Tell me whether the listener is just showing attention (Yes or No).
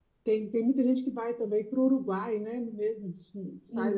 Yes